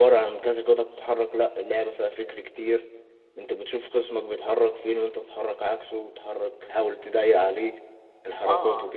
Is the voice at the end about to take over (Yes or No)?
Yes